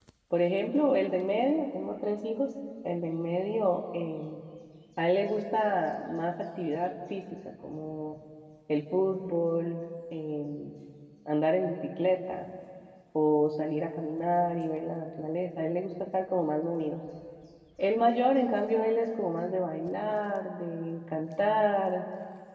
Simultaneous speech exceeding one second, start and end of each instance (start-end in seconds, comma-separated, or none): none